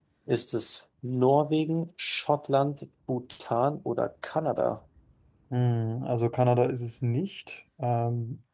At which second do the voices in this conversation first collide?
none

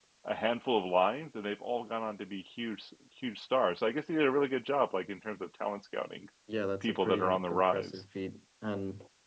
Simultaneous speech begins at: 6.8 s

